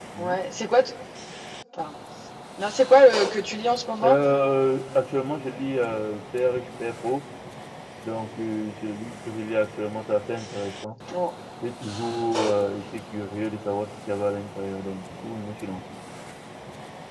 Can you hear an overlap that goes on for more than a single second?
No

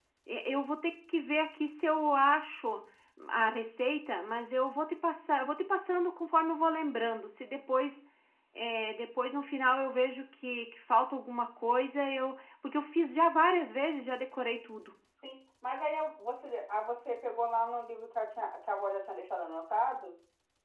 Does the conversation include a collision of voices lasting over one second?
No

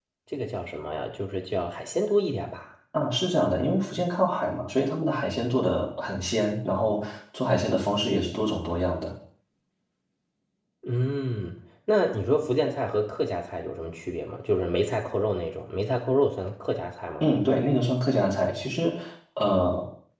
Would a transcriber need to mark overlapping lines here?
No

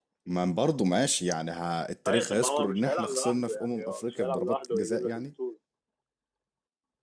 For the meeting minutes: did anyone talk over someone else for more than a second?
Yes, from 2.1 s

